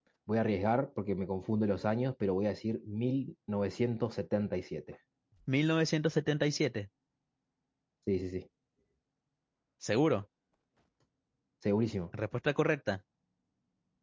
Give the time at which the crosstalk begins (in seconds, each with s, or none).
none